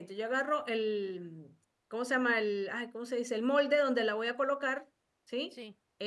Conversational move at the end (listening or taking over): listening